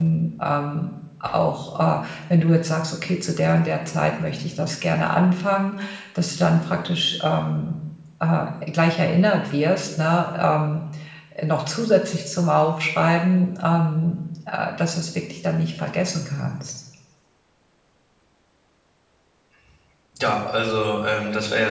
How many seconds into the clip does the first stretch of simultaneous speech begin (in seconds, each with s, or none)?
none